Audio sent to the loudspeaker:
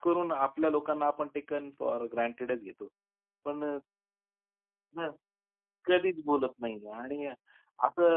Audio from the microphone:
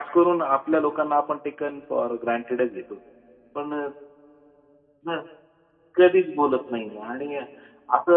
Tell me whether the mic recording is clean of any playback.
No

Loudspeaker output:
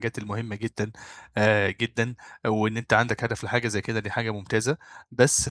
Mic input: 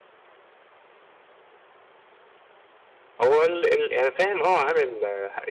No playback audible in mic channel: Yes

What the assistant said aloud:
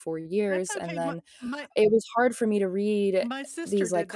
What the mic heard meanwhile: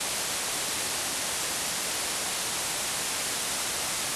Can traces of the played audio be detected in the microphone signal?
No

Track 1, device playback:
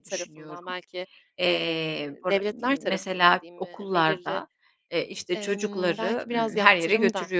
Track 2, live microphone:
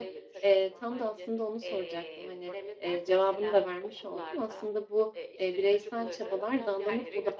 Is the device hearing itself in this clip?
Yes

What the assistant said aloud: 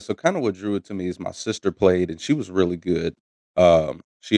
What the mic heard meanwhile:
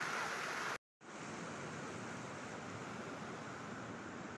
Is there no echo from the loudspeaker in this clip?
Yes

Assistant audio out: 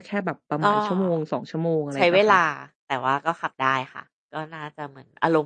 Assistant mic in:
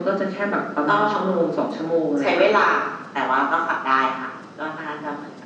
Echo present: Yes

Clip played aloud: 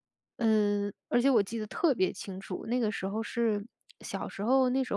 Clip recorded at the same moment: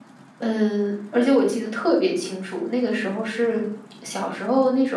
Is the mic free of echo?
No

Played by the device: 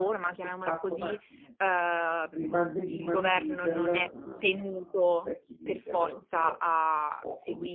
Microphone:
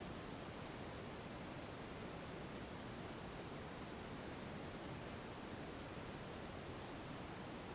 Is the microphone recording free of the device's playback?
Yes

